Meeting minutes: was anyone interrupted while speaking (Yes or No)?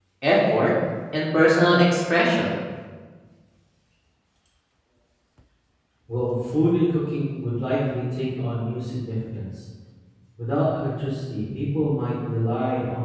No